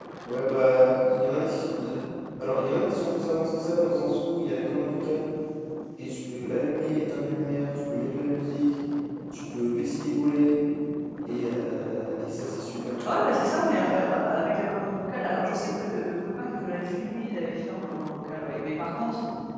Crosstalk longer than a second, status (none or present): none